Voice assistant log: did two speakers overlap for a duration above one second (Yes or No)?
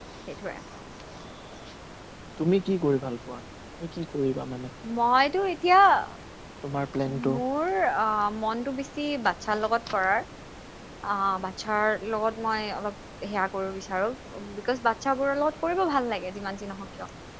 No